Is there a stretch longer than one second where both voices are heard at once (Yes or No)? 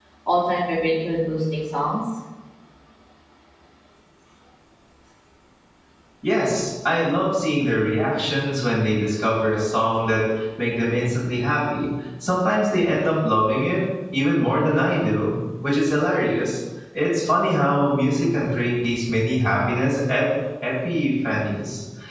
No